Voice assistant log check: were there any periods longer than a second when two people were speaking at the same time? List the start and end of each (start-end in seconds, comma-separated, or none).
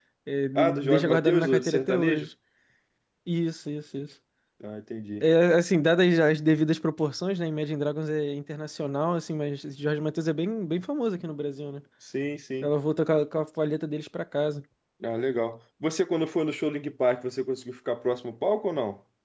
0.6-2.3